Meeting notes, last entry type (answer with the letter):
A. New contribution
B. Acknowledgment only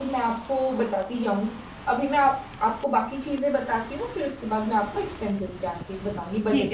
A